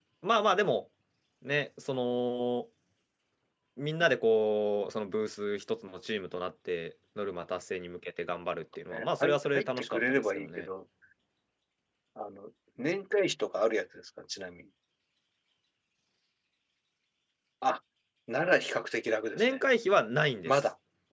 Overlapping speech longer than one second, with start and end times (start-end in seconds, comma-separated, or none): 8.9-10.7